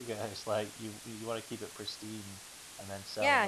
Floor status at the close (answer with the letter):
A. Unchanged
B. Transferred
B